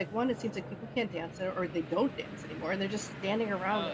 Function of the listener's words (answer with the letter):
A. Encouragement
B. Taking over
B